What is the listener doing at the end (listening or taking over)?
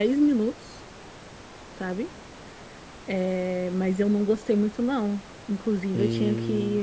listening